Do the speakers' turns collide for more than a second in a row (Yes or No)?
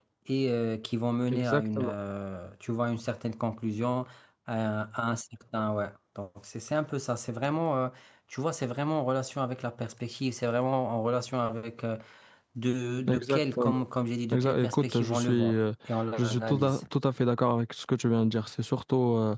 Yes